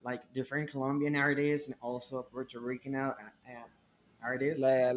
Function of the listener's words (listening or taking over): taking over